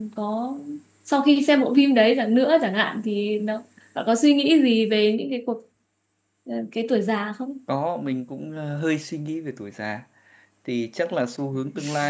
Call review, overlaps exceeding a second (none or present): none